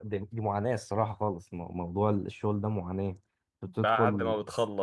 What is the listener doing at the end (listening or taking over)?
taking over